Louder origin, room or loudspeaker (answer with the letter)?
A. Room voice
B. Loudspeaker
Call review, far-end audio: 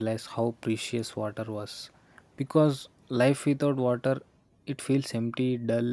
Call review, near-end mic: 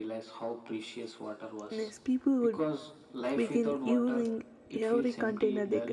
A